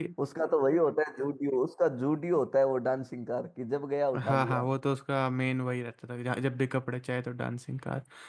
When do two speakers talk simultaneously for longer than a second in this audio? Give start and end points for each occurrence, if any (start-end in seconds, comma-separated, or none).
none